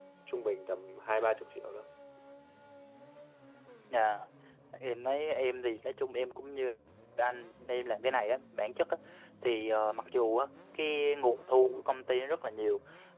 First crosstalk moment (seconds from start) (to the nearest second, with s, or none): none